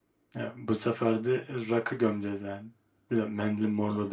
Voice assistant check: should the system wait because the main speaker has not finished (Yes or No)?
Yes